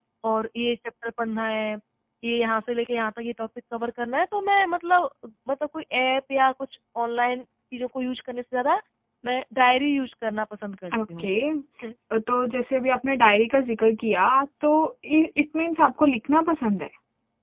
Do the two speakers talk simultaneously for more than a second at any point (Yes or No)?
No